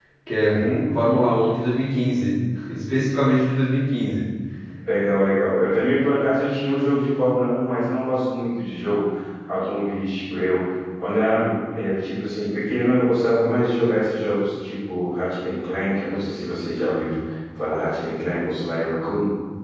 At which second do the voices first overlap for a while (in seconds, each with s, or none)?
none